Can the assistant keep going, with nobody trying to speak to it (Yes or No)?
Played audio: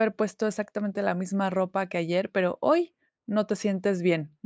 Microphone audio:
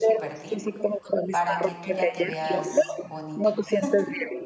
No